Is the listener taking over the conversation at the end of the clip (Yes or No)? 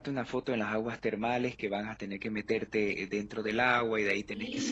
No